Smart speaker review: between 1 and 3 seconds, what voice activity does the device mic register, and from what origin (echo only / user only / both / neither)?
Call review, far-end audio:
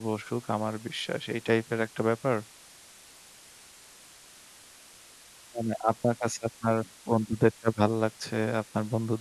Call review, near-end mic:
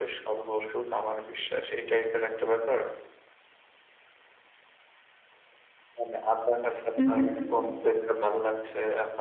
echo only